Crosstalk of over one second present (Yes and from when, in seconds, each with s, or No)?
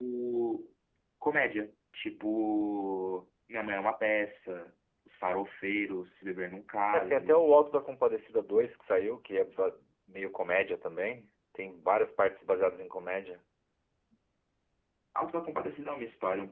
No